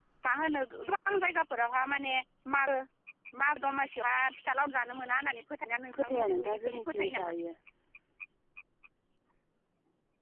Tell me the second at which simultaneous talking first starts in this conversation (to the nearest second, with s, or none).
6 s